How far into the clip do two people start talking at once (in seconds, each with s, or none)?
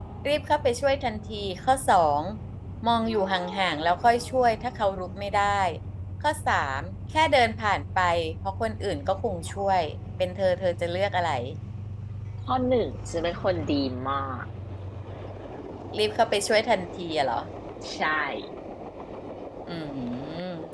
none